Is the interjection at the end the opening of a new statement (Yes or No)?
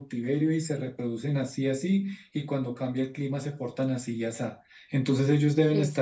No